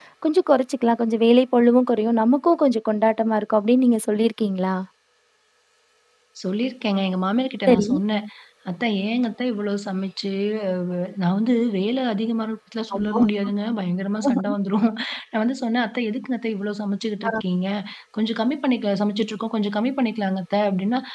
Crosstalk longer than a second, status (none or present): none